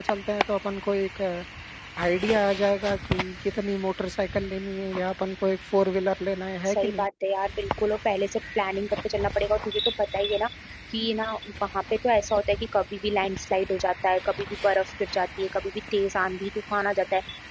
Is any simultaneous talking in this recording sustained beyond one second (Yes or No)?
No